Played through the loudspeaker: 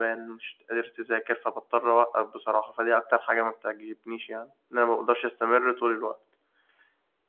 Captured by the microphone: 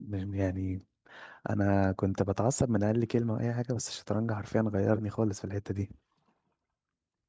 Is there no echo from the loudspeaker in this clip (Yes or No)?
Yes